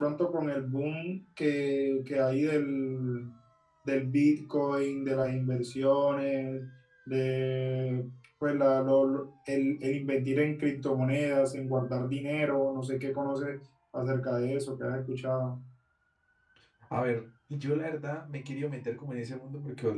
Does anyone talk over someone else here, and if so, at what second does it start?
none

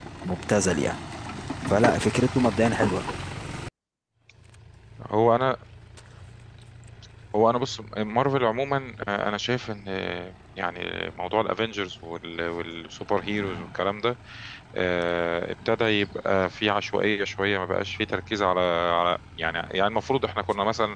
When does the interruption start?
none

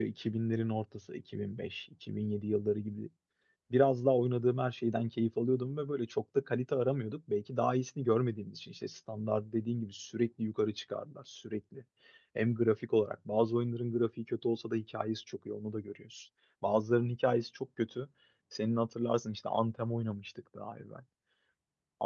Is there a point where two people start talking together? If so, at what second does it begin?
none

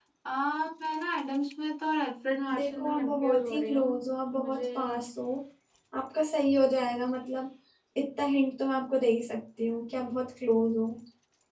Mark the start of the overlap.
2.5 s

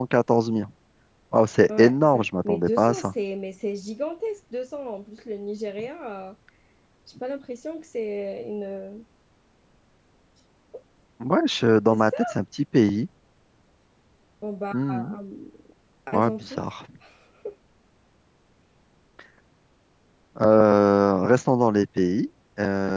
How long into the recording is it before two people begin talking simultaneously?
1.7 s

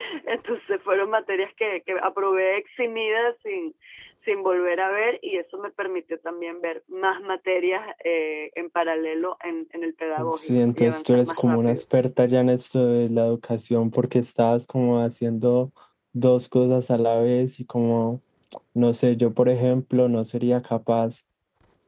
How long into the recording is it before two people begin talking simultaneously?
10.2 s

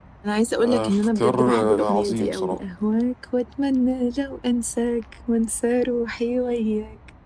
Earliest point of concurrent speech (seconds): 0.6 s

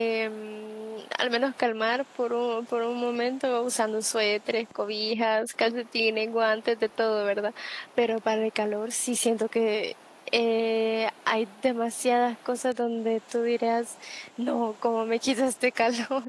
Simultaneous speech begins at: none

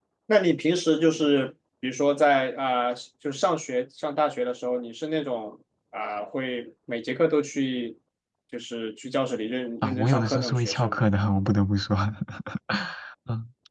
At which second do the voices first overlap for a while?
9.8 s

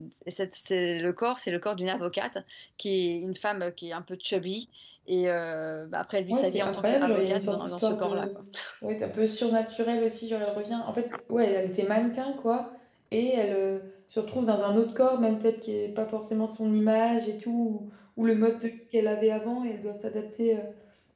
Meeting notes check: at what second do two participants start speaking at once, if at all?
6.3 s

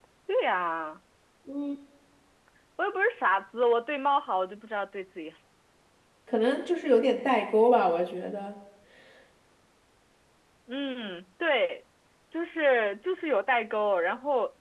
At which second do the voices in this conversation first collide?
none

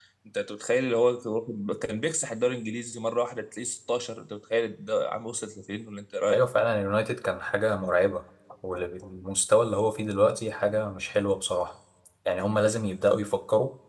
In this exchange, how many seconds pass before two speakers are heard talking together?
none

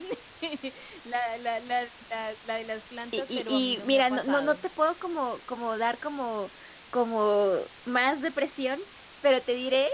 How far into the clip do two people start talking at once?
3.1 s

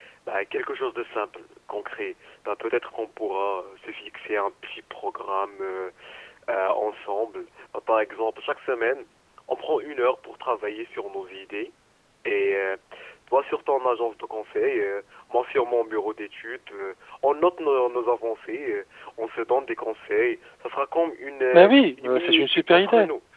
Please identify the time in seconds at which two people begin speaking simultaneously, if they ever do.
21.5 s

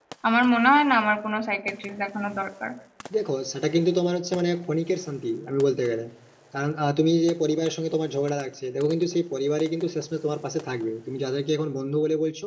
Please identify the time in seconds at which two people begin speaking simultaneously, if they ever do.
none

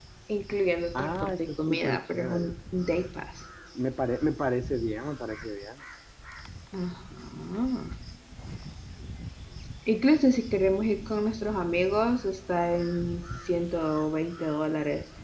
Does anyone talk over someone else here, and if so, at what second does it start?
1.0 s

